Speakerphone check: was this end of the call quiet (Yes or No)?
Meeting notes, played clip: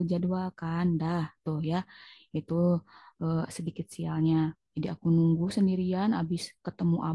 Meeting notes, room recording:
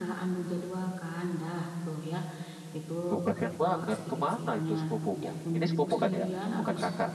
No